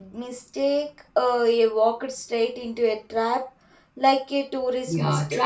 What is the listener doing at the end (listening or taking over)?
taking over